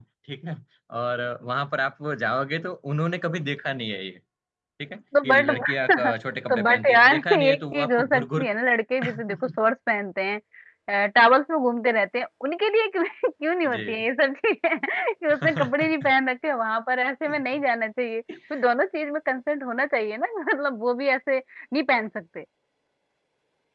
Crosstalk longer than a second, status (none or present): present